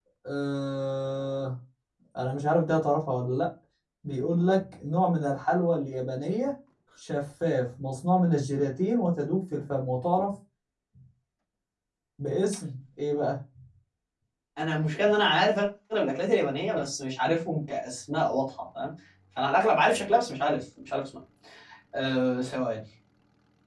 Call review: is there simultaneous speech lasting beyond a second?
No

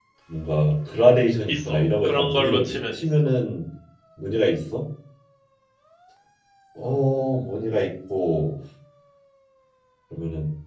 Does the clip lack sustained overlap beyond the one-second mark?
No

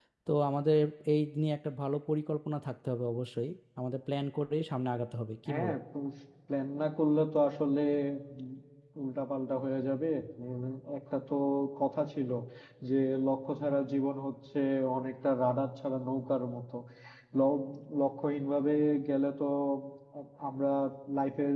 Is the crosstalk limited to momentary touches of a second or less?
Yes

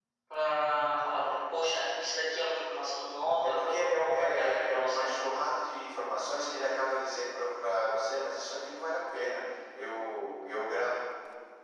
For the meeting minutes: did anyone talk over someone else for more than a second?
Yes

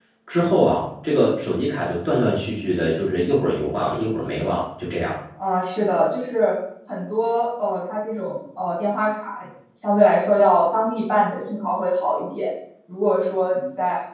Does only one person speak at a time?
Yes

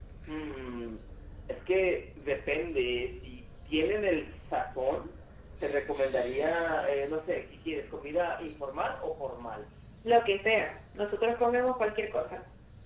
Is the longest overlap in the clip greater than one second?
No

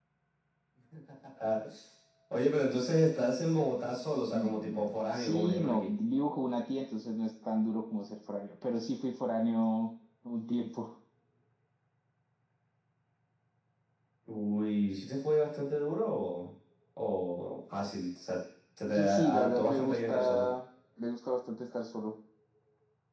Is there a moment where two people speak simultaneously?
Yes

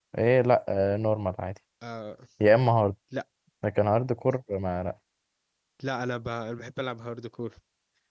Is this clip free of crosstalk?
Yes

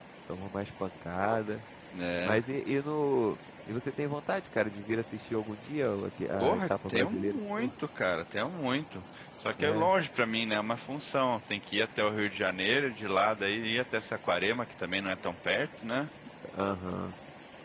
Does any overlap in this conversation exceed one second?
Yes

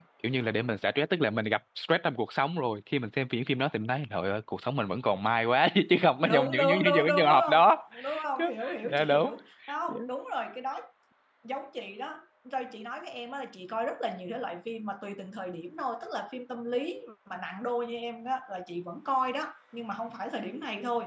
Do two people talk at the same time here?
Yes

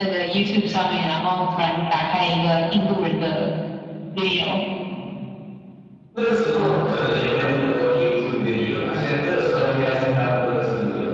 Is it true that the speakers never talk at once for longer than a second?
Yes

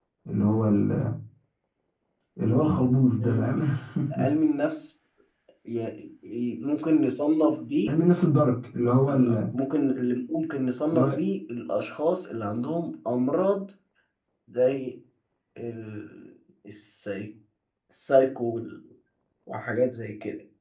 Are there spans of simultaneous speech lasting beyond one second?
No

